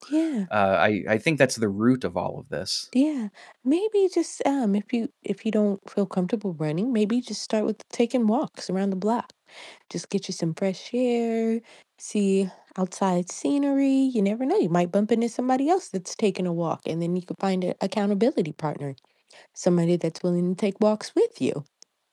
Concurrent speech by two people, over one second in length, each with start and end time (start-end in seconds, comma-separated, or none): none